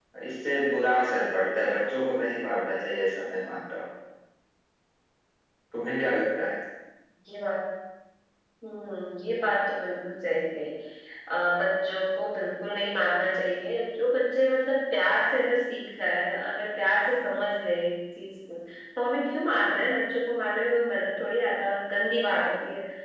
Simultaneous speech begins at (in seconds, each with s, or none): none